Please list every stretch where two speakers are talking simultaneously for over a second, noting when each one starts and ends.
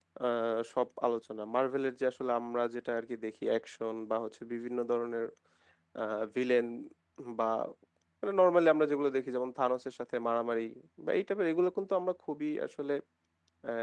none

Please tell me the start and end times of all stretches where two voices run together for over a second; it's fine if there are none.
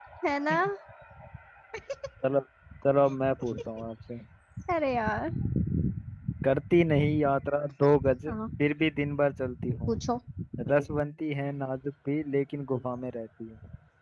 none

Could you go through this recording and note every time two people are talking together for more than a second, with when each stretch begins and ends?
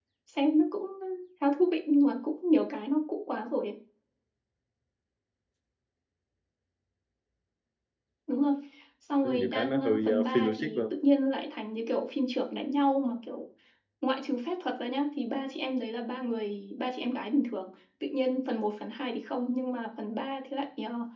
9.2-10.9

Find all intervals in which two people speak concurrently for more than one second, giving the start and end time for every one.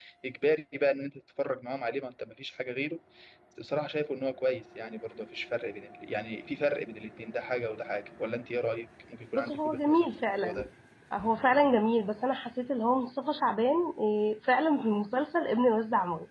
9.3-10.7

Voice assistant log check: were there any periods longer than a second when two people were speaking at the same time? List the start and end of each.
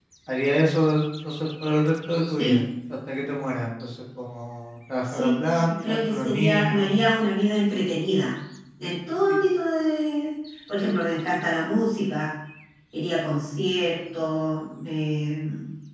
5.1-6.9

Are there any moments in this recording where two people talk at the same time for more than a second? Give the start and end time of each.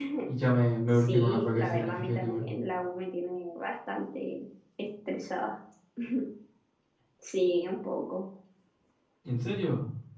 0.9-2.4

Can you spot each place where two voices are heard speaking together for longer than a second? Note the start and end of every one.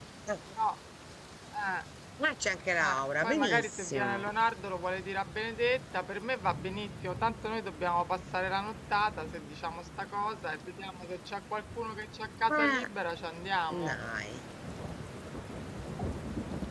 2.8-4.3

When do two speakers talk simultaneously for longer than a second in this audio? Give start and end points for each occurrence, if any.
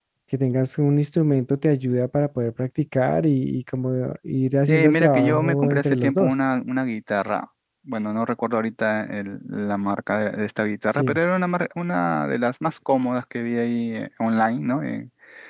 4.7-6.4

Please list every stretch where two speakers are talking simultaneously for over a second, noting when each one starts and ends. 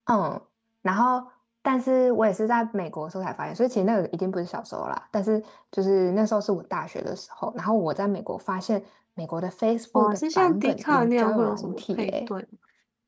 9.9-12.3

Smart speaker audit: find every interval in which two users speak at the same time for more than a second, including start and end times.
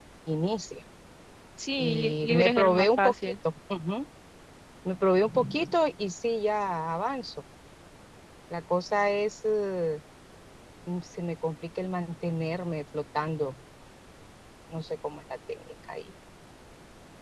1.8-3.3

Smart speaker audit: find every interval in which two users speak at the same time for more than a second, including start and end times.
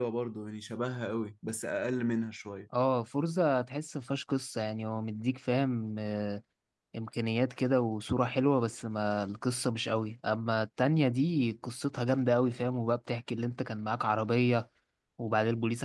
none

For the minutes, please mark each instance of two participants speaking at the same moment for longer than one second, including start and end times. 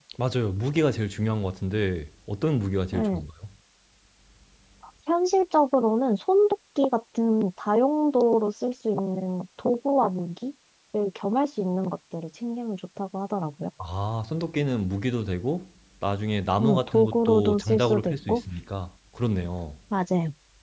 16.6-18.4

